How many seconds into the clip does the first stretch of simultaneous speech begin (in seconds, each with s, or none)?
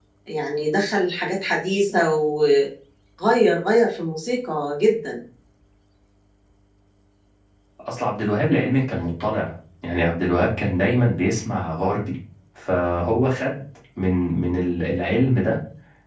none